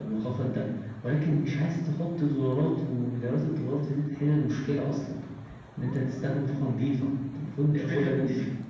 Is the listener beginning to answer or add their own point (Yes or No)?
Yes